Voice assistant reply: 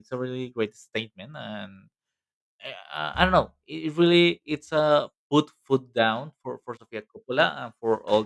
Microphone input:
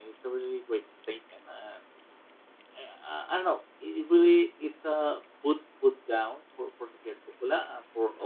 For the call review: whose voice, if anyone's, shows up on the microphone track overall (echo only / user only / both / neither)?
echo only